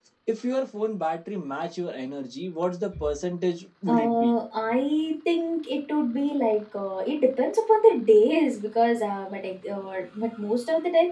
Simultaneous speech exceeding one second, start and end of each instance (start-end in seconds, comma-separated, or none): none